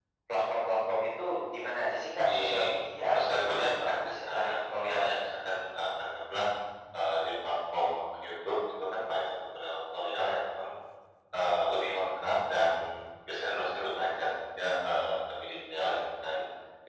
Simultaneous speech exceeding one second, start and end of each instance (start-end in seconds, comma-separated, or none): 3.1-5.2